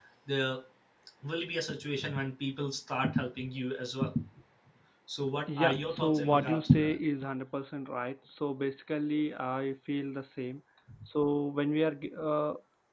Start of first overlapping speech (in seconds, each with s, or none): 5.5 s